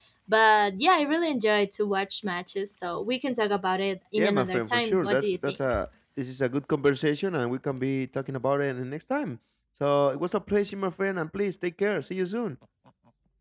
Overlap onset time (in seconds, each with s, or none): 4.2 s